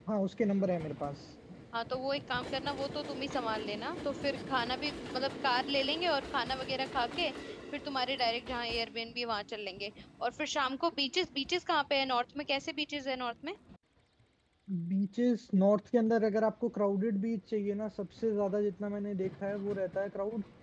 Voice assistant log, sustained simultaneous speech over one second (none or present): none